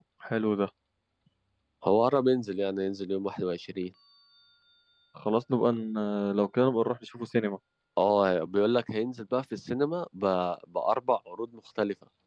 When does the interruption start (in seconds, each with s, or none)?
none